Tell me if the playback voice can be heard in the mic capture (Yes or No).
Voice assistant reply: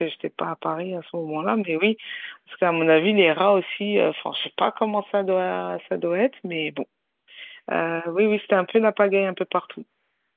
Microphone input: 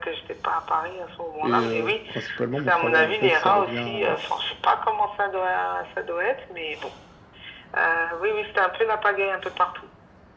Yes